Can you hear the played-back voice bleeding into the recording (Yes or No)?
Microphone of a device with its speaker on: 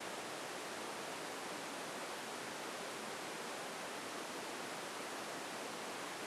No